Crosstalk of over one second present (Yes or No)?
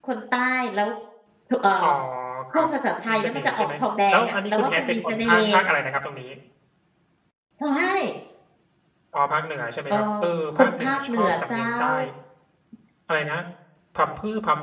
Yes